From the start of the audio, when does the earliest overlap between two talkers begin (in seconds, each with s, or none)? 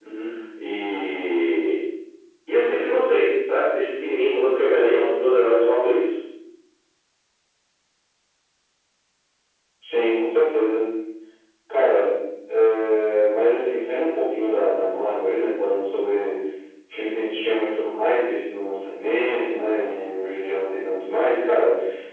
none